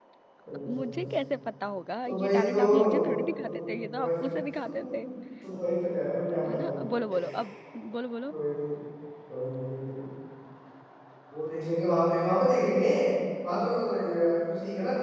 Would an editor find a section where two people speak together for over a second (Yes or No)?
Yes